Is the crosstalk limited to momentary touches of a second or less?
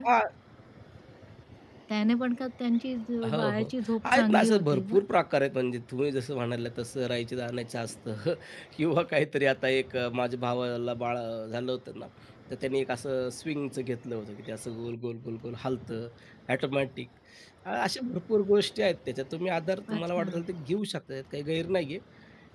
No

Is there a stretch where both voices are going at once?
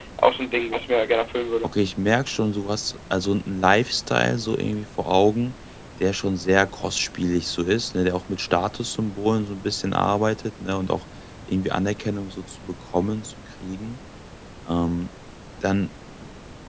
No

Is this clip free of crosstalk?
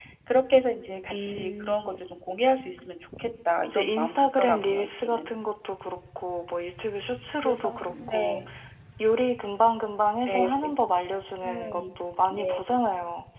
No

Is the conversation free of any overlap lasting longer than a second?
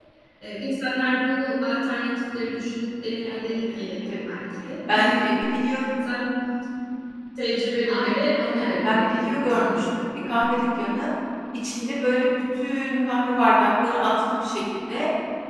No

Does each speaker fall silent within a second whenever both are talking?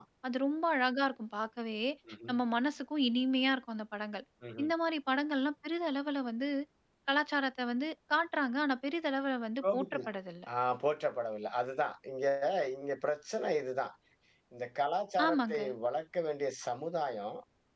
Yes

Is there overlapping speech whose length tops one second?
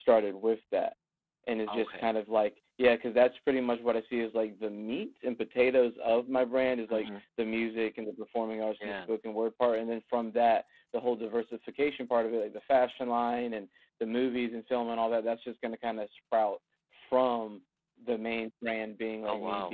No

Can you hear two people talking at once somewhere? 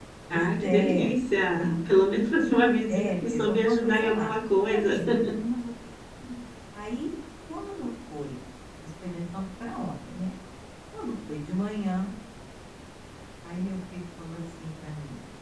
Yes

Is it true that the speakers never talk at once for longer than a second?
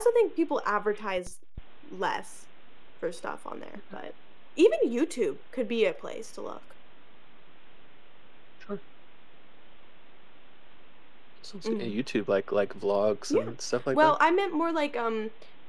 Yes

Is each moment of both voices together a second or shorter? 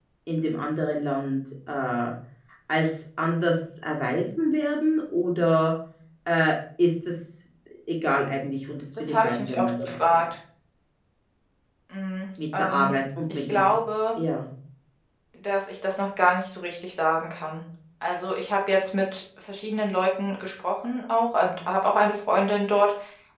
No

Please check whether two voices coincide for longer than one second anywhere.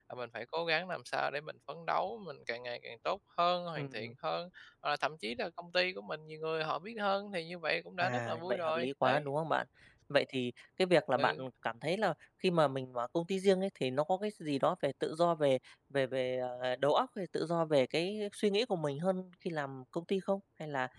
Yes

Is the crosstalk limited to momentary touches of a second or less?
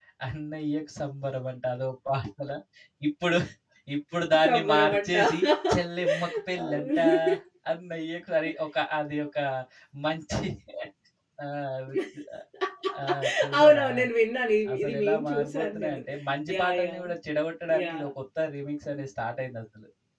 No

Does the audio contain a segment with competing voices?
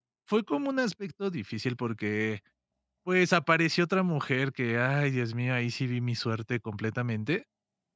No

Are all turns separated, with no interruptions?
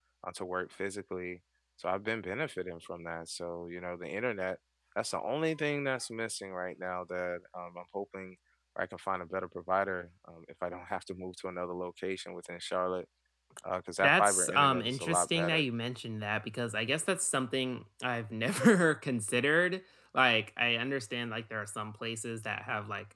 No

